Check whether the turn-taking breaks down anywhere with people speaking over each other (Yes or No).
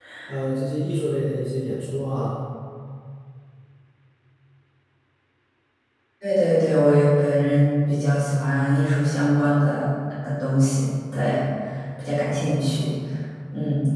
No